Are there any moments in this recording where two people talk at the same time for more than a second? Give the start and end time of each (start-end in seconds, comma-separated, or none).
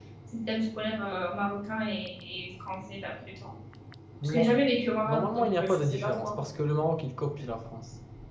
5.1-6.5